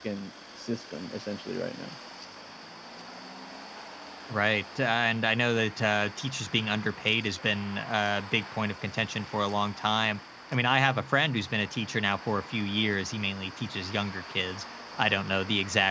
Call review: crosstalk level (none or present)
none